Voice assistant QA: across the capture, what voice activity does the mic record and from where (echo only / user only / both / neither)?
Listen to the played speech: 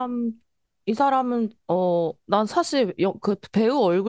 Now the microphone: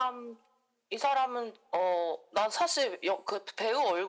echo only